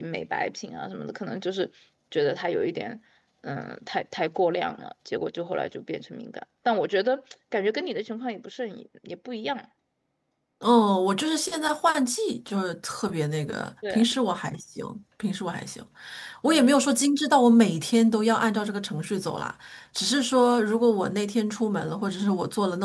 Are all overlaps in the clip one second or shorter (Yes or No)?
Yes